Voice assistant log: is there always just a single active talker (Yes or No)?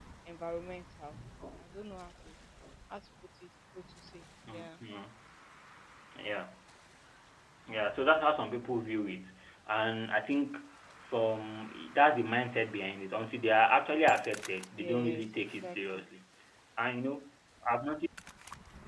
No